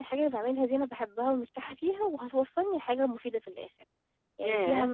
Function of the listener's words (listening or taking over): taking over